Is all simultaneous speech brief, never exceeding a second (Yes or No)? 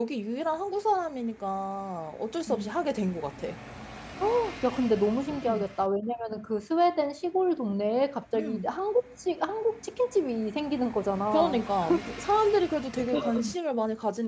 Yes